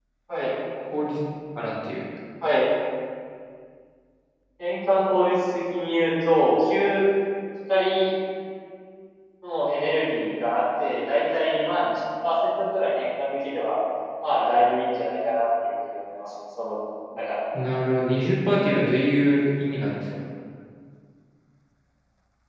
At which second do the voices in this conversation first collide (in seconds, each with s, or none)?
none